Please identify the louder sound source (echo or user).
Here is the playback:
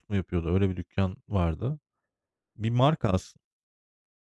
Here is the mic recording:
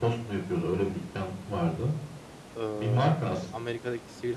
echo